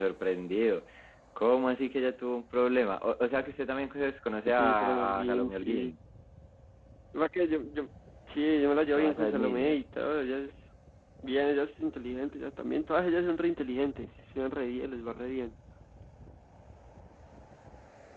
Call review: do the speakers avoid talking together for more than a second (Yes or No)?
No